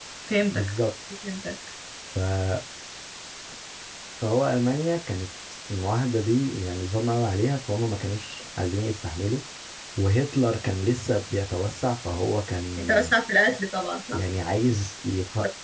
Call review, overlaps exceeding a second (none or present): none